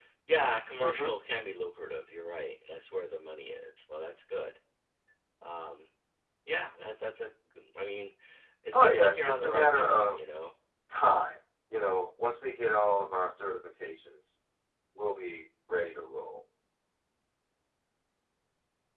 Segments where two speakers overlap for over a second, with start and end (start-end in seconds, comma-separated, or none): 8.7-10.2